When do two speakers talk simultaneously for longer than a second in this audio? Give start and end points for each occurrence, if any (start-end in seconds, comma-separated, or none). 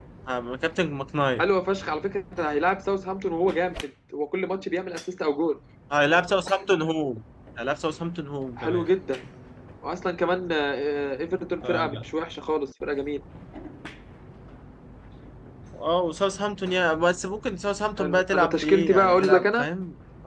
18.0-19.7